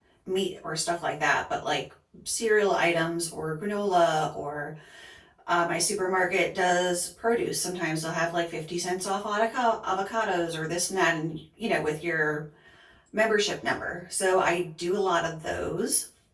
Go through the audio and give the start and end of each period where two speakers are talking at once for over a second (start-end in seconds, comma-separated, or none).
none